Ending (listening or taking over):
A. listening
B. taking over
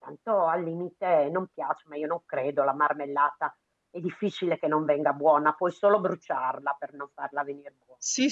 B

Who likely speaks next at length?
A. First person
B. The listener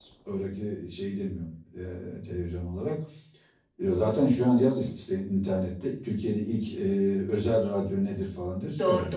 B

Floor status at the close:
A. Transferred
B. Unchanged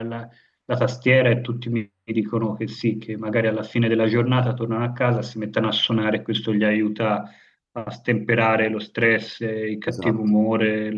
B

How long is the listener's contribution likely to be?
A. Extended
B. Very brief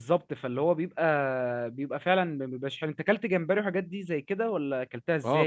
A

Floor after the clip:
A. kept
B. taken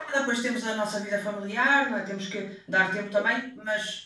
A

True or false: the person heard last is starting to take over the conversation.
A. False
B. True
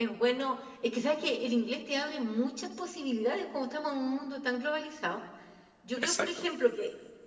A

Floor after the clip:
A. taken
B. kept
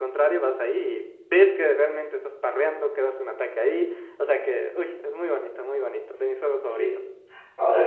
A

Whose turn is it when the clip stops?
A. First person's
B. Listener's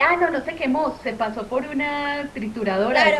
B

